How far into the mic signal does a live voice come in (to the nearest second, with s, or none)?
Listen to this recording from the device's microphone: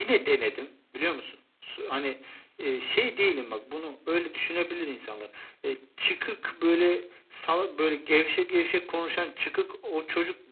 none